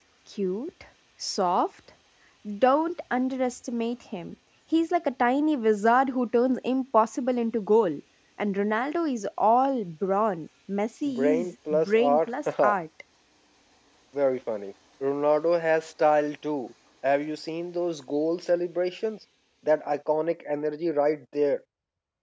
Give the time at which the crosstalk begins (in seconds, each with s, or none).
11.1 s